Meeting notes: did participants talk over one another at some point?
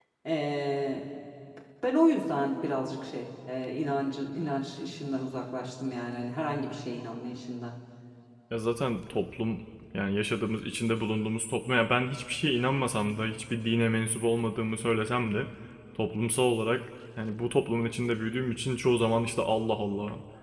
No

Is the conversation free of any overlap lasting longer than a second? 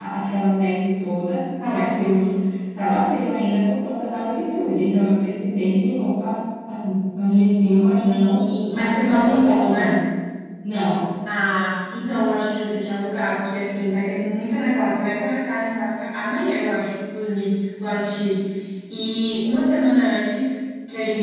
No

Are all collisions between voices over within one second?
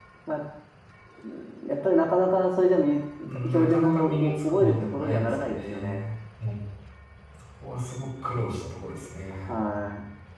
No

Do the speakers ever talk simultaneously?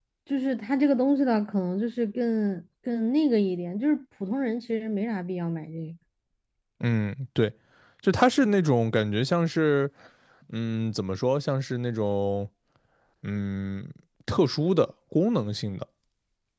No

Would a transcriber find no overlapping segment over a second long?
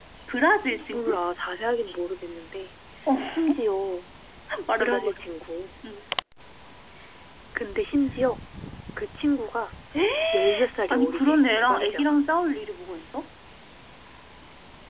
No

